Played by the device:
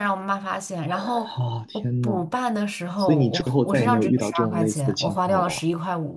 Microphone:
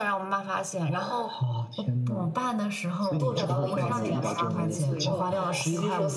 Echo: present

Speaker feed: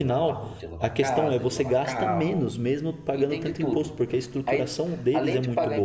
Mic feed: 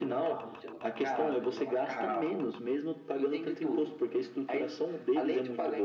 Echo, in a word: present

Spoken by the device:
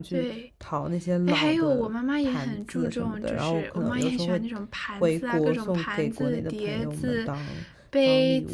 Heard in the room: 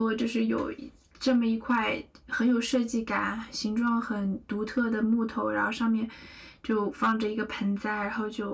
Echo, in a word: none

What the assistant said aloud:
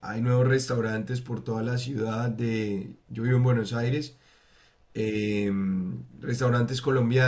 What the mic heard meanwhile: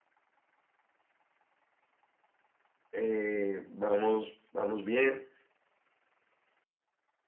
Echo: none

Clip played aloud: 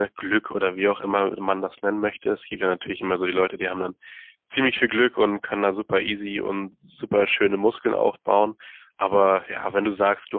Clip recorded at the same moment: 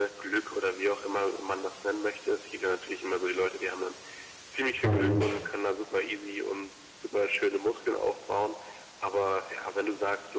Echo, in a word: present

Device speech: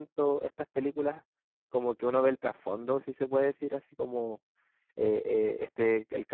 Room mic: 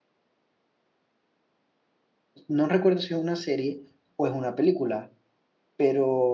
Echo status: none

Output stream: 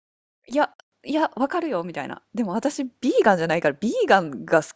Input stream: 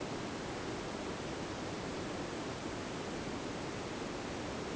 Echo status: none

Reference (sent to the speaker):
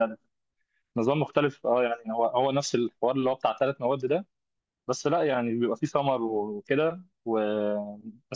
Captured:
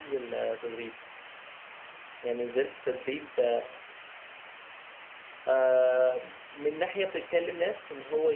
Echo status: none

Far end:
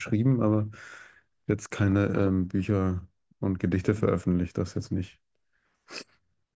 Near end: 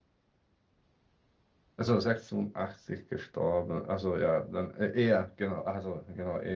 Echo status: none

